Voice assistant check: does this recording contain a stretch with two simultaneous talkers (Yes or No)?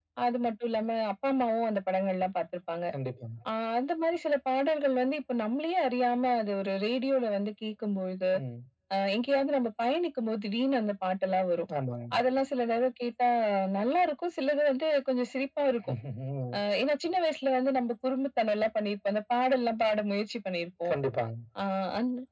No